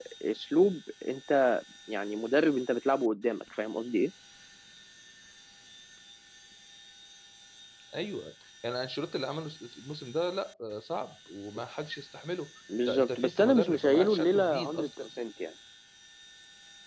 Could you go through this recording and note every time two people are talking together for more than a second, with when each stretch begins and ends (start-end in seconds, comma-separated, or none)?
12.9-14.9